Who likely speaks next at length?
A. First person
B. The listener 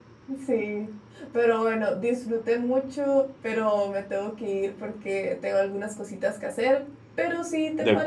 A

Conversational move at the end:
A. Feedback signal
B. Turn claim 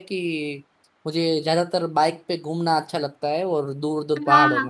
B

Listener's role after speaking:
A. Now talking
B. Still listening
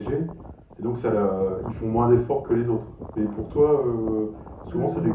B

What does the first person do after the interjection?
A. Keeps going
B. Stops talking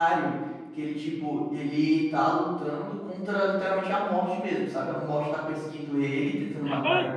B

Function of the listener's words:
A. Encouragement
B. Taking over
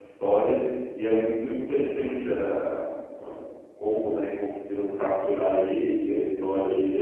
B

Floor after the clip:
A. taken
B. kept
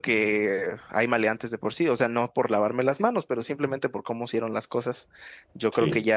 B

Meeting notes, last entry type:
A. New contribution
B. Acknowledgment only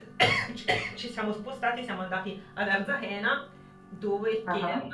B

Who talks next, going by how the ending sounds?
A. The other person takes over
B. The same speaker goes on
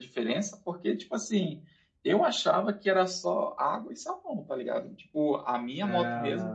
B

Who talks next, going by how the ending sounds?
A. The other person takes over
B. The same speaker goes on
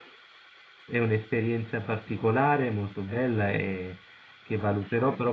B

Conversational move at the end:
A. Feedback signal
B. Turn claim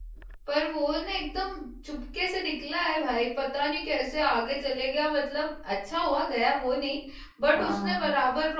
A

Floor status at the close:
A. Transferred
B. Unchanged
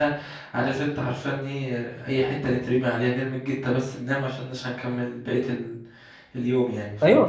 A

